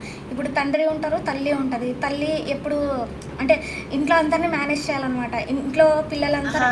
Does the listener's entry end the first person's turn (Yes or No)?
No